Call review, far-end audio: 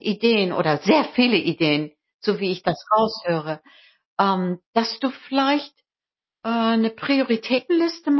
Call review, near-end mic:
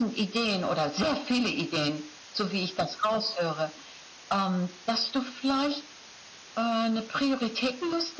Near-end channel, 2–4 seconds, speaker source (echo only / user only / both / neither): echo only